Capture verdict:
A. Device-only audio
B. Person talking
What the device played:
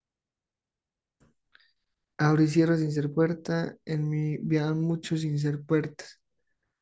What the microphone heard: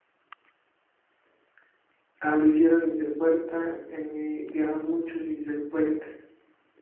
A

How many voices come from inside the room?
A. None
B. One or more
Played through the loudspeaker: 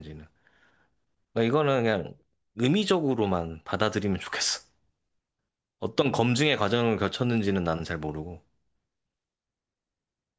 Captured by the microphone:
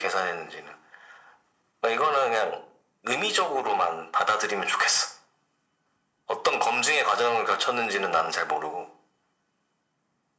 A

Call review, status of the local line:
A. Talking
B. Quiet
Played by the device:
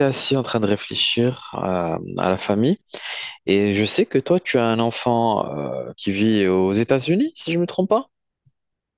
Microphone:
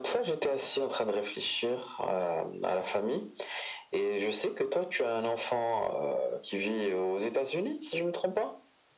B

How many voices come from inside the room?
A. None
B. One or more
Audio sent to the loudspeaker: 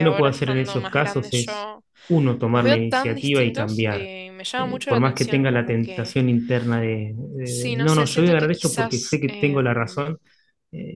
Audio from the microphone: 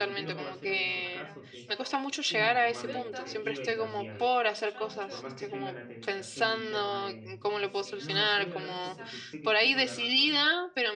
B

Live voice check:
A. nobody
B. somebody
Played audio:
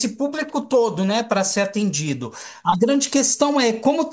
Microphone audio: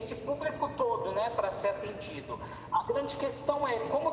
A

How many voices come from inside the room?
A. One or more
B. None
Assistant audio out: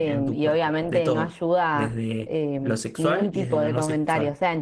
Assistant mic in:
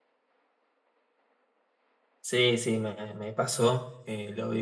A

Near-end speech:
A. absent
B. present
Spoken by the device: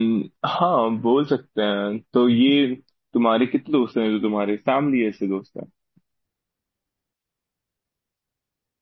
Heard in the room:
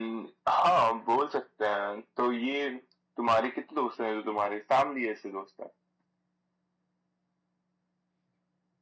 A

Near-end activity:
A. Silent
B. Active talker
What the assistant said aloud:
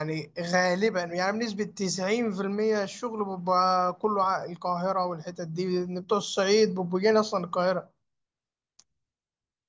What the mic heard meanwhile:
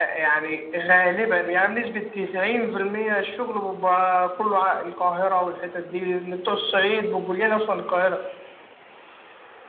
A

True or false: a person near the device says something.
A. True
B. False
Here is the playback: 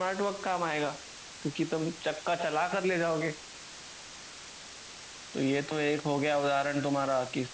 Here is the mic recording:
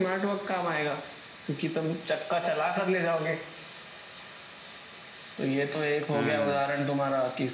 A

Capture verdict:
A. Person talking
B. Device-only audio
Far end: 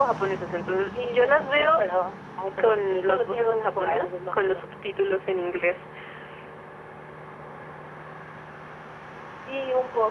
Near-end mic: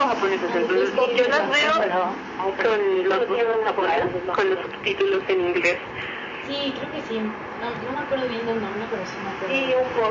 A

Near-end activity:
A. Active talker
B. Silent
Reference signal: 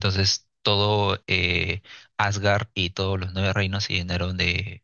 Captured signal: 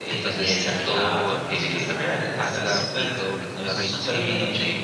A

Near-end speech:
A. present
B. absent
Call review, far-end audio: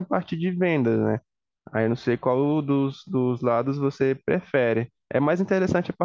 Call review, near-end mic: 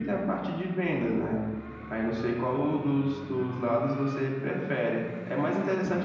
B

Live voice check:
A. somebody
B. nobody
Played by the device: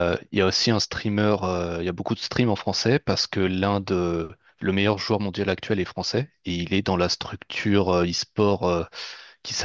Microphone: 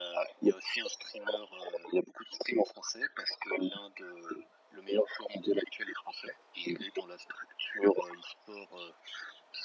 B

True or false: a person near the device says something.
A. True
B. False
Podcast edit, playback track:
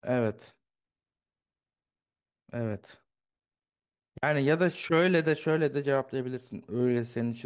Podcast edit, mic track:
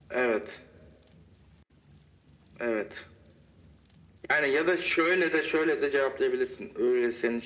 B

